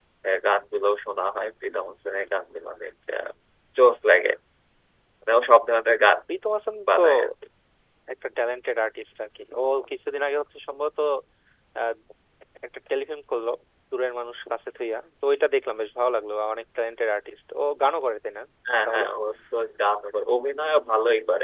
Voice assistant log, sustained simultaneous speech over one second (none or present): none